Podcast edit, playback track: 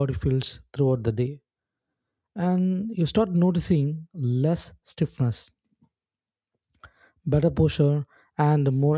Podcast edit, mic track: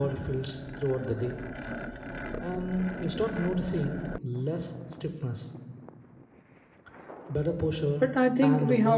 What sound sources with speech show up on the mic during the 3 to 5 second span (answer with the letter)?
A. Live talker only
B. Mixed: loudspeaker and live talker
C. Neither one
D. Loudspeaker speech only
D